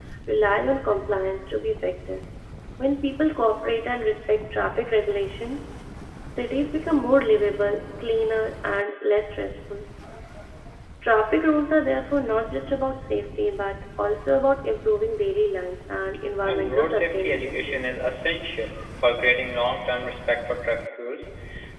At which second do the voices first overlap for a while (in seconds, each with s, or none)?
16.4 s